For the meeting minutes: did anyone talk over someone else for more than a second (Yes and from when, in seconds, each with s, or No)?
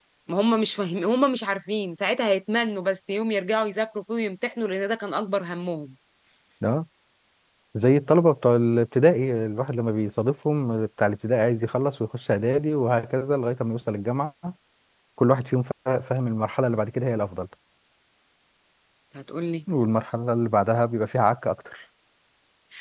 No